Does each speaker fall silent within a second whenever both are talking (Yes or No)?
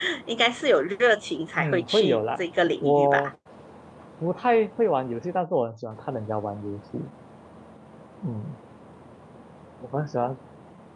No